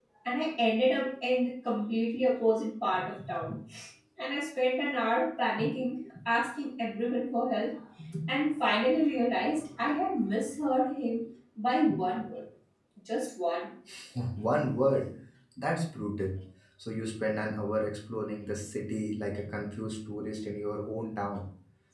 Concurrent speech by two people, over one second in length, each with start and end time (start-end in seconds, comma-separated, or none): none